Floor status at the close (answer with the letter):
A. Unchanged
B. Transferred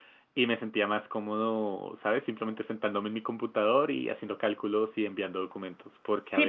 B